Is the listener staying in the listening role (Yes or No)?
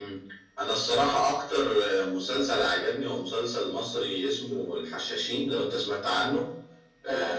Yes